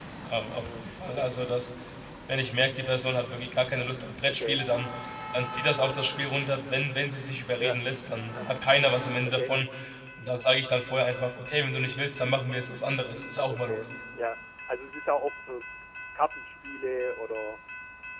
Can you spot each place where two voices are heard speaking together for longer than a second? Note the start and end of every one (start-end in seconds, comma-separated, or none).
none